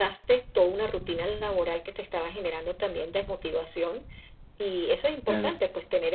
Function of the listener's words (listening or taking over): listening